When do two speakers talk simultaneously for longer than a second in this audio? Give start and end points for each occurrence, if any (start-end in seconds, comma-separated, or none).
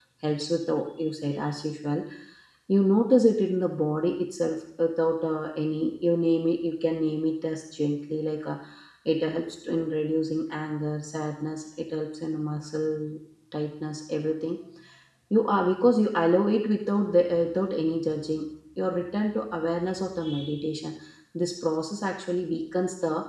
none